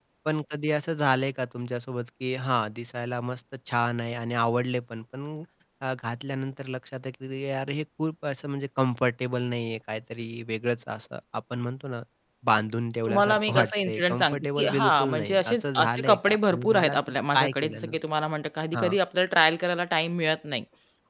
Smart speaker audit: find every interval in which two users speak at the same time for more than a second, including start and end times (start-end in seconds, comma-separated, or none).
13.1-17.9